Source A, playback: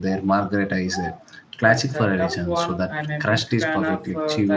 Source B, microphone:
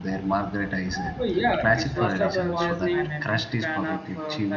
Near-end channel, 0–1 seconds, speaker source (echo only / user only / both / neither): echo only